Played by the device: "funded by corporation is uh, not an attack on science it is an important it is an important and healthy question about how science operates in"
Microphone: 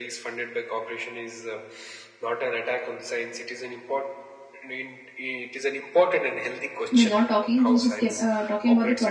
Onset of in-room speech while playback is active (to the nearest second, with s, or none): 7 s